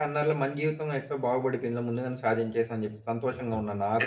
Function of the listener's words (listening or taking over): taking over